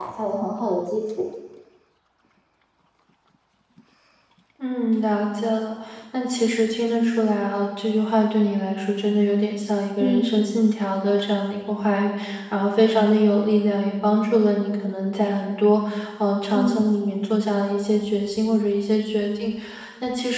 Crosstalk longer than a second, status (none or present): none